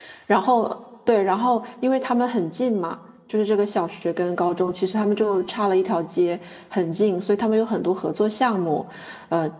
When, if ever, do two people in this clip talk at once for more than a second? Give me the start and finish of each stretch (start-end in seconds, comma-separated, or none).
none